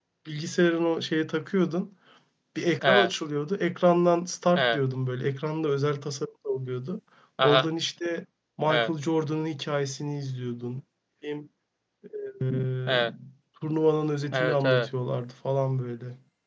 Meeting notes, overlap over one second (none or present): none